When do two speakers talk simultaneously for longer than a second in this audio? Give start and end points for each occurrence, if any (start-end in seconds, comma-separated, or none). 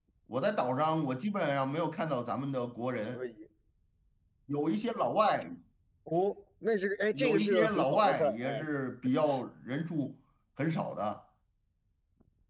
7.1-8.7